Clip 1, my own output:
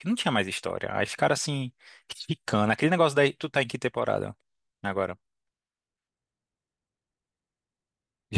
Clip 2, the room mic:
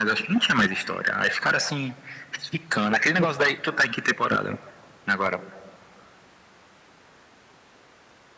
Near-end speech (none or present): none